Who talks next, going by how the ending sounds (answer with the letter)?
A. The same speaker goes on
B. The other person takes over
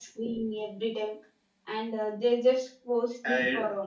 A